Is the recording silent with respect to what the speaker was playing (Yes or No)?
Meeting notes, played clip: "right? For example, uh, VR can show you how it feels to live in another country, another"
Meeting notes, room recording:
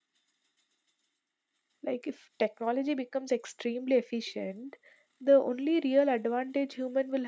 Yes